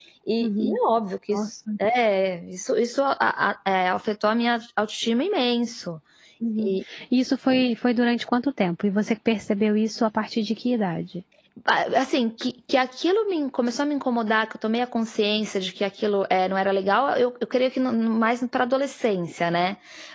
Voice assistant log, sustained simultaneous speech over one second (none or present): none